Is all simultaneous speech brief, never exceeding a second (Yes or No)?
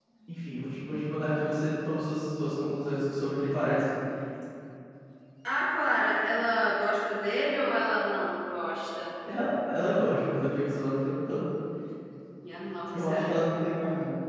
Yes